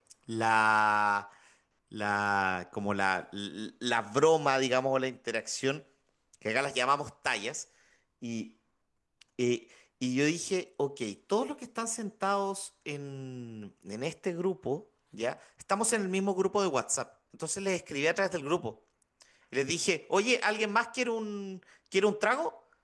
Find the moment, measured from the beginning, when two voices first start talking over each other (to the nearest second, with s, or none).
none